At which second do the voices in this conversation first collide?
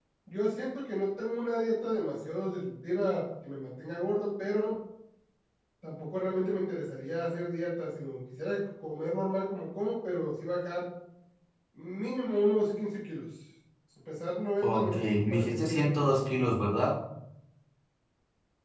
14.6 s

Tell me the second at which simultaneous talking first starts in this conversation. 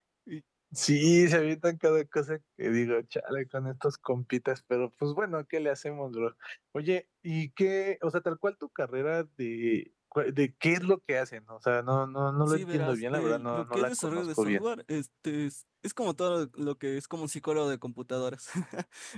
12.5 s

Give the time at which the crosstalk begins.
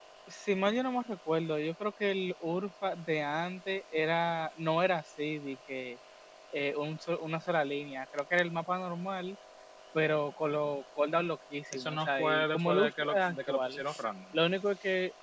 11.7 s

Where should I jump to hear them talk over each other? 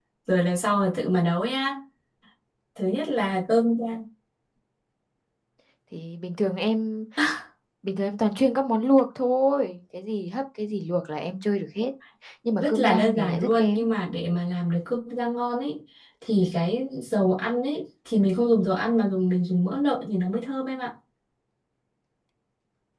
12.6 s

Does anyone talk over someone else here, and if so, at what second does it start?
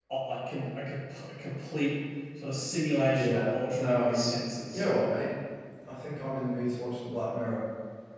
3.0 s

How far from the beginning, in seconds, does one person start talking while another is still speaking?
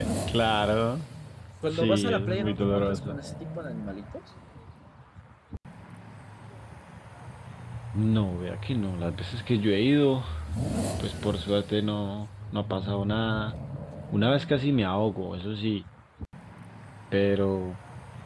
1.7 s

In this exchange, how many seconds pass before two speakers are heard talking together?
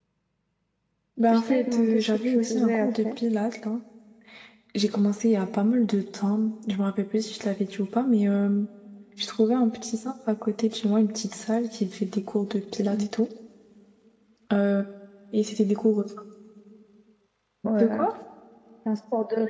1.3 s

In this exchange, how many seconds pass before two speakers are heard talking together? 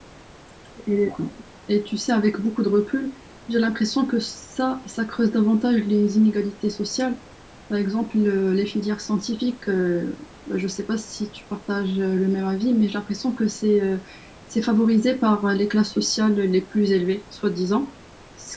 none

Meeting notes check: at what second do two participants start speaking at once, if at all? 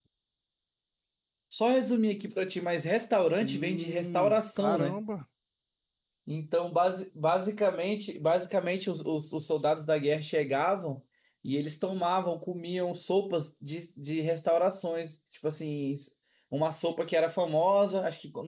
3.4 s

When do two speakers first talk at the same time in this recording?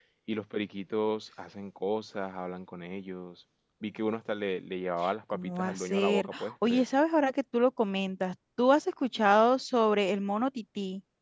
5.3 s

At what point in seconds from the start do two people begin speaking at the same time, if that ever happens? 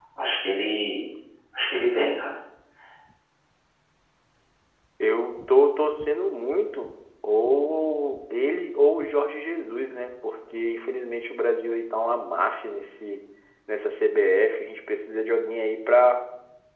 none

